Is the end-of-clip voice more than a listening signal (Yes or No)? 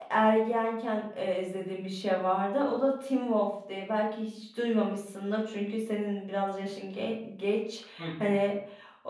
No